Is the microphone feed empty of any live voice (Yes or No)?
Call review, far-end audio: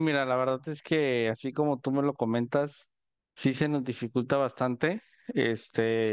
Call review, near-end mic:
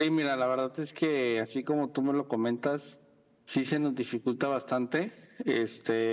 Yes